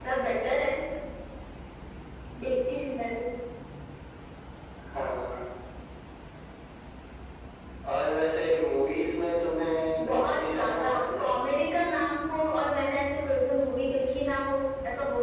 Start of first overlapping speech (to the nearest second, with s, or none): 10 s